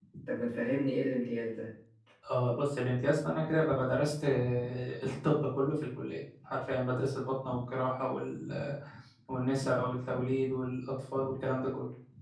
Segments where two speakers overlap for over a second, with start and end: none

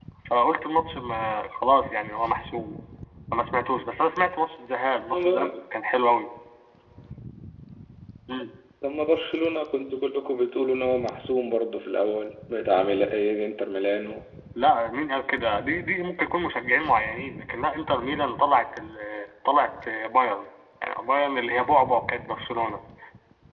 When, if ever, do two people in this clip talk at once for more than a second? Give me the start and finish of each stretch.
none

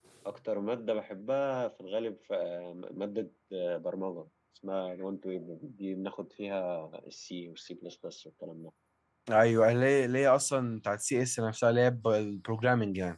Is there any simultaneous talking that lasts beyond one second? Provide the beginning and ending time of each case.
none

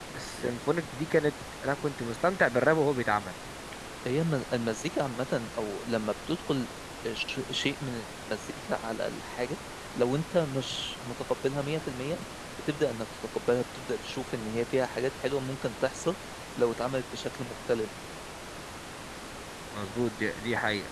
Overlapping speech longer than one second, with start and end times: none

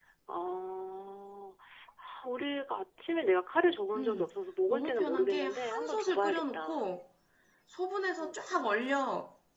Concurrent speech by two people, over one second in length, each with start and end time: 4.7-6.8

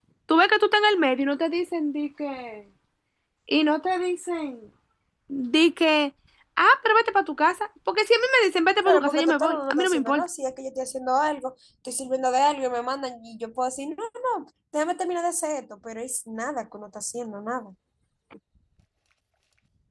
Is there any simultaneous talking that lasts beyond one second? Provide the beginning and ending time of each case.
8.8-10.2

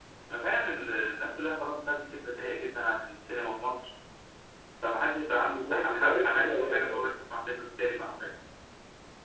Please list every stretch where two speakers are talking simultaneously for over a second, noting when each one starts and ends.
5.4-7.1

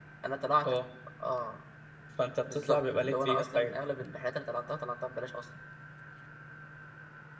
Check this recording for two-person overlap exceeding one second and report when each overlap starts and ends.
2.4-3.8

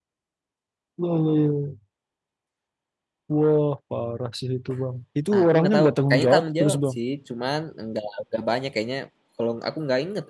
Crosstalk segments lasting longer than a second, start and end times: 5.3-7.0

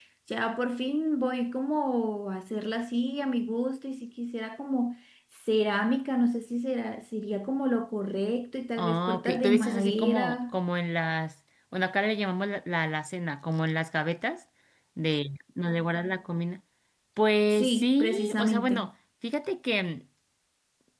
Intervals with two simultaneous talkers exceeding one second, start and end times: 8.8-10.6, 17.5-18.9

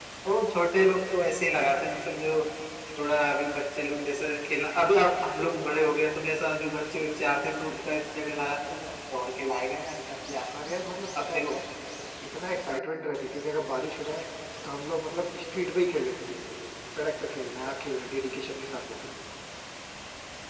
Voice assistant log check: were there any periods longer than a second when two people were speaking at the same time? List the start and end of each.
none

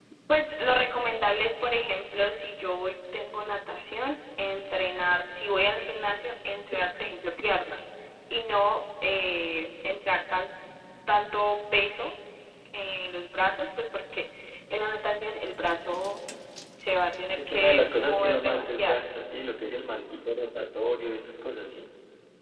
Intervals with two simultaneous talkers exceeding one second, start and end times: 17.4-19.0

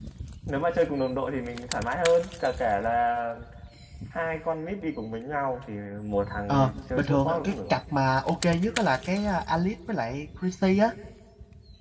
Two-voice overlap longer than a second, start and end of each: 6.5-7.7

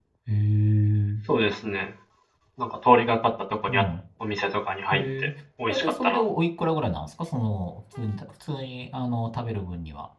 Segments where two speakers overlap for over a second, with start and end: none

